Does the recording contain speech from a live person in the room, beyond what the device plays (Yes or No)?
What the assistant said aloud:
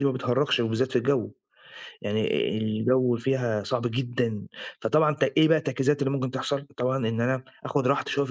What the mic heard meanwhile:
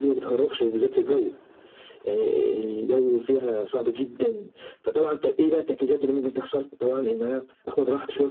No